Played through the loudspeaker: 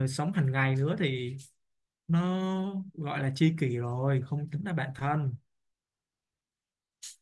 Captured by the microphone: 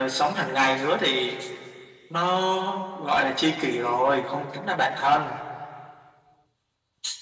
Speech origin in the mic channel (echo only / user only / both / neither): echo only